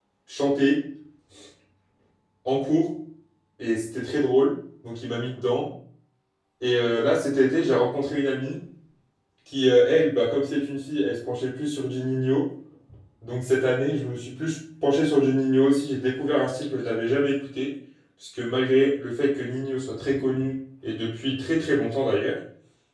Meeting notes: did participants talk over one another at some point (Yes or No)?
No